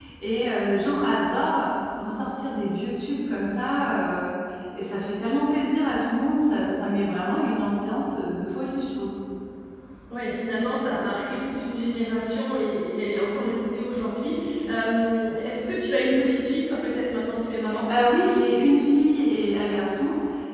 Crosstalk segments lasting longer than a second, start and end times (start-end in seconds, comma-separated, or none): none